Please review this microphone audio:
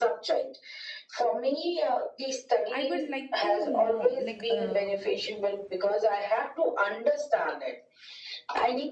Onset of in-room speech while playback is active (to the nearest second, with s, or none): 3 s